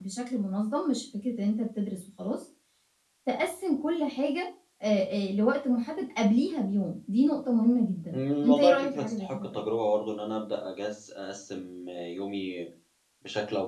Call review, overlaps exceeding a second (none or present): present